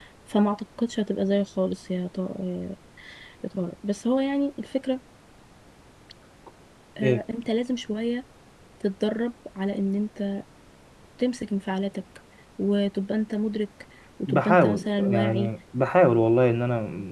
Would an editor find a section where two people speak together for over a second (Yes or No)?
Yes